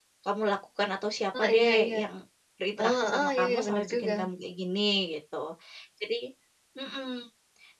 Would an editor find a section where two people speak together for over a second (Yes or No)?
Yes